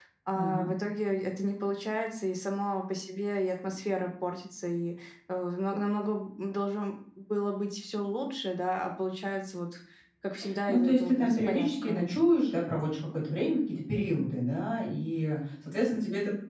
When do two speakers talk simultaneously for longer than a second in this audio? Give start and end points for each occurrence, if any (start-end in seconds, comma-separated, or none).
10.7-12.0